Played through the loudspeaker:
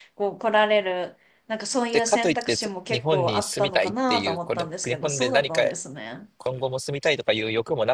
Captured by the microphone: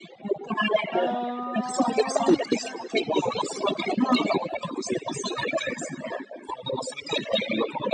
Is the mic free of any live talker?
No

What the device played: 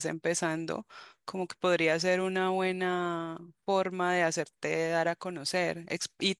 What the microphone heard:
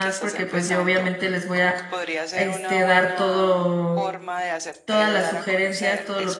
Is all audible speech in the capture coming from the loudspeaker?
No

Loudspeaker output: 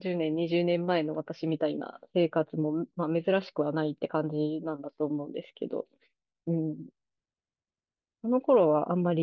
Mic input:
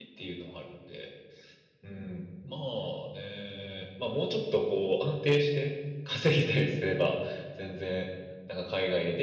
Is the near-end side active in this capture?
Yes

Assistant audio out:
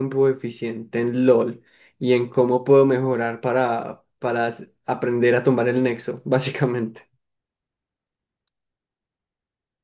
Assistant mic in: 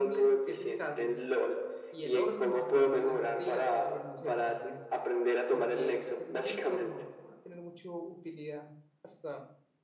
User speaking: Yes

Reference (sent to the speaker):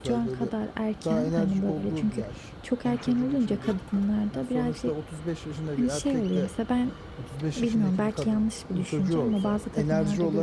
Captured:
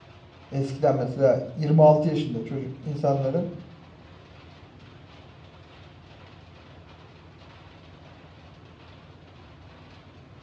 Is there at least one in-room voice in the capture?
Yes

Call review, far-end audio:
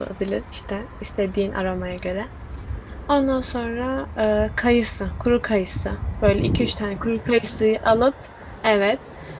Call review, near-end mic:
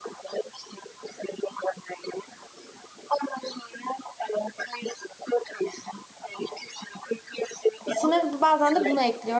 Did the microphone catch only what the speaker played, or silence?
No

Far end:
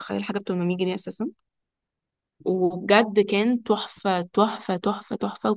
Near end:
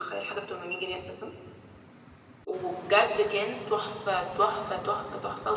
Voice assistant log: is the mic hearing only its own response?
Yes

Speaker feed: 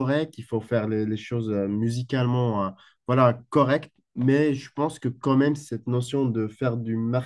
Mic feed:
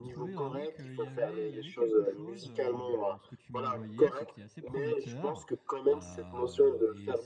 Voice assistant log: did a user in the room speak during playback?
Yes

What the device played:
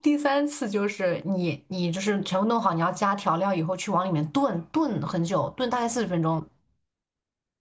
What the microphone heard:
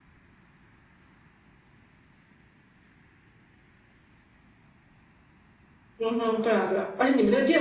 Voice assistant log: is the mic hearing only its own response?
No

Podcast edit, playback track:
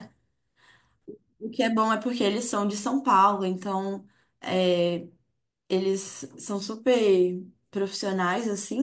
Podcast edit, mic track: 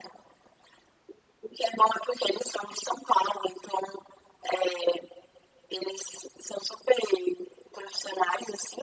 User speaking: No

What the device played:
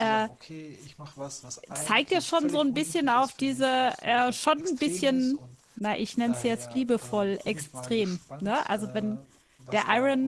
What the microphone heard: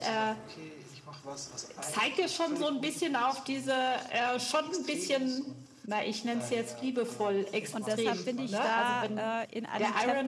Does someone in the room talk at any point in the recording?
Yes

